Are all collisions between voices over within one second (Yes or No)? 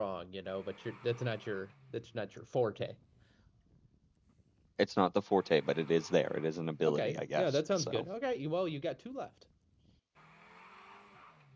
No